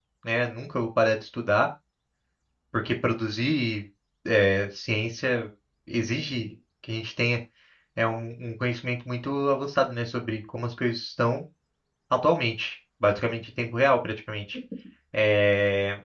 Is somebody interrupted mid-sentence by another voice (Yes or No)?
No